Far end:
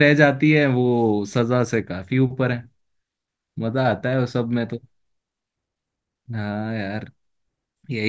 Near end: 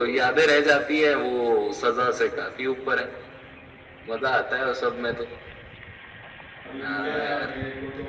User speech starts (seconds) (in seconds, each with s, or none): 6.7 s